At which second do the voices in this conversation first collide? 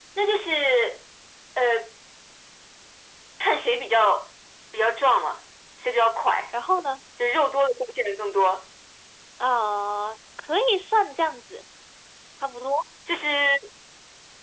none

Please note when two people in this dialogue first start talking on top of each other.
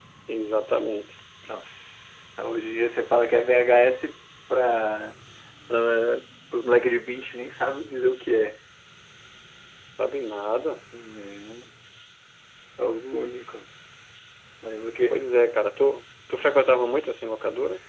none

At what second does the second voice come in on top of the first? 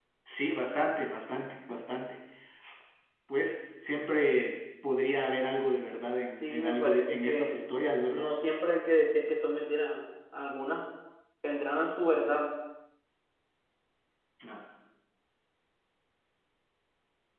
6.4 s

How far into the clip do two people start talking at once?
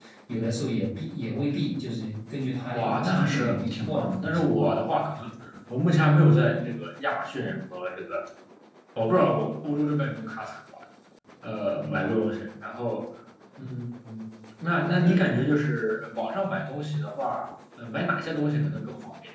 2.7 s

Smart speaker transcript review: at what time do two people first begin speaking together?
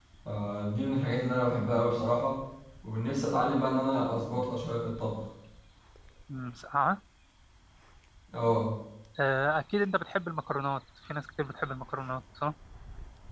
none

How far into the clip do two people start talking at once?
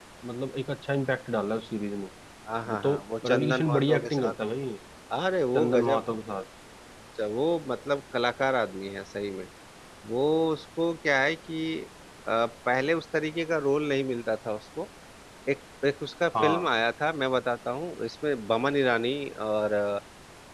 2.7 s

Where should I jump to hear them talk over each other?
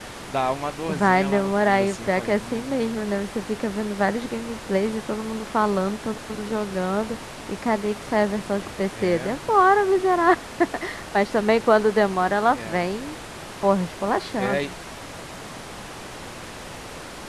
0.9 s

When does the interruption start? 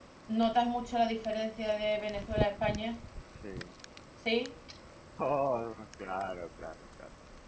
none

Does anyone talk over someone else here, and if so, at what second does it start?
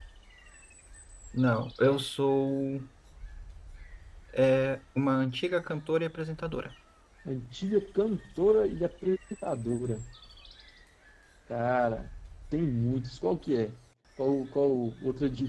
none

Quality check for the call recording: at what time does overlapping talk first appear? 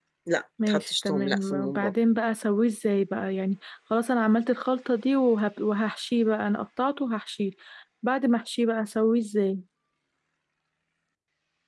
0.7 s

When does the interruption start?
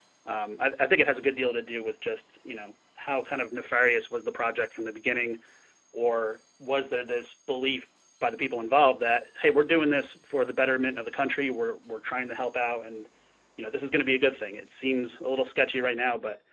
none

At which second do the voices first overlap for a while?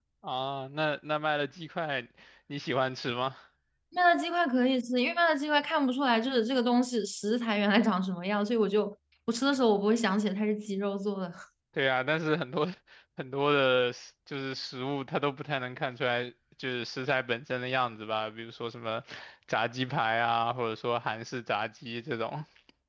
none

